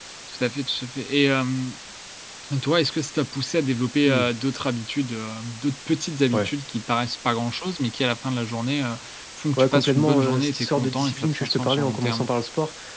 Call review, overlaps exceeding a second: present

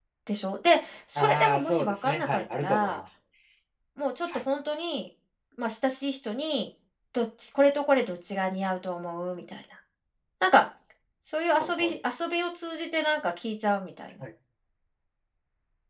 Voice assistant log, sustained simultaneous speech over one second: present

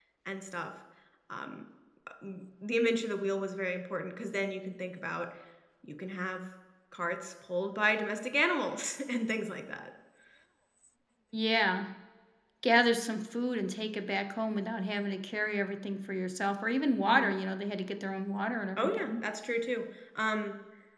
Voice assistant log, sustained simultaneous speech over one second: none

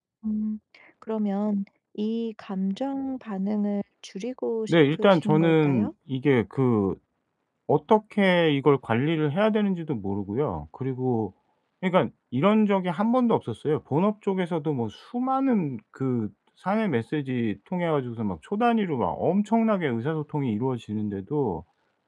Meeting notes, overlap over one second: present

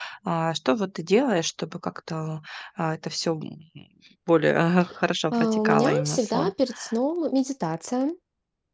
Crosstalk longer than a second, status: present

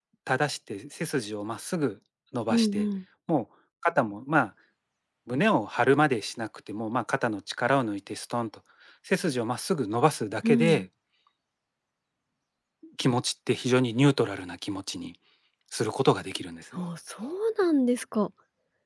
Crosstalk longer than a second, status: none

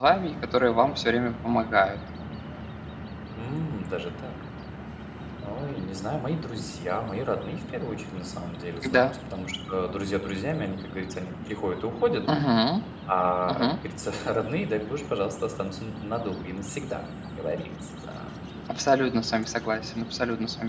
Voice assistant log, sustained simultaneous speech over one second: none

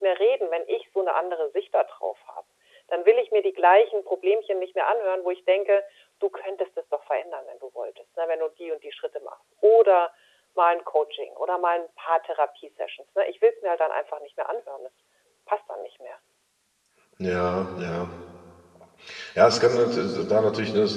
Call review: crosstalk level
none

